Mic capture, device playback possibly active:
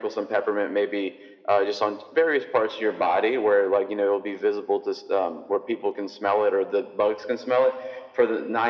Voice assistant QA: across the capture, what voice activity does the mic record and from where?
echo only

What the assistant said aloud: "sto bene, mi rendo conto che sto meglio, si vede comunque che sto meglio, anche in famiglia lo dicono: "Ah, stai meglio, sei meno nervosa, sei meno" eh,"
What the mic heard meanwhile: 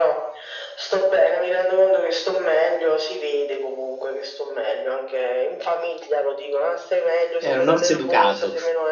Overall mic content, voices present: both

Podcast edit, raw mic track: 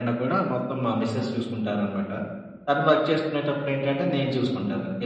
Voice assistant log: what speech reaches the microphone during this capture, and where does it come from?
echo only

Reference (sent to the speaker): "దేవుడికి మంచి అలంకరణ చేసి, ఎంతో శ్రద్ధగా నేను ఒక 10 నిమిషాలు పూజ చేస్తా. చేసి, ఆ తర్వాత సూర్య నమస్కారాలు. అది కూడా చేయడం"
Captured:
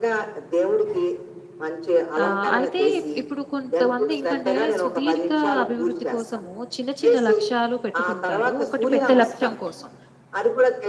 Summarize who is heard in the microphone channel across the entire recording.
both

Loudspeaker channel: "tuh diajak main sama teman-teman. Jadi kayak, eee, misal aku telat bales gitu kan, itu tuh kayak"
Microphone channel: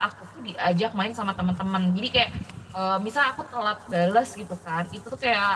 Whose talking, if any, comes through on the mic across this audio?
echo only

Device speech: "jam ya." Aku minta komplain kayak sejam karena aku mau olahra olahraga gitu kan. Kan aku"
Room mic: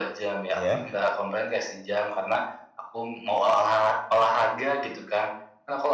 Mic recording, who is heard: both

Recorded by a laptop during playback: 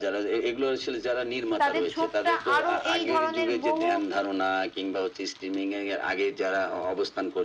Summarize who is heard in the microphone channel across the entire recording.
both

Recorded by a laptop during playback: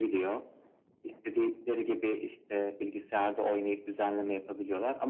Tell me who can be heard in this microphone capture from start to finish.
echo only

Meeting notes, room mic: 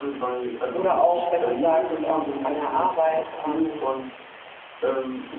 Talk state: both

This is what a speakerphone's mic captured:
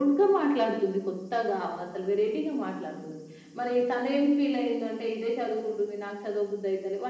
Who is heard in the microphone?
echo only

